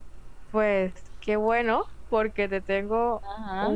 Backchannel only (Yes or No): Yes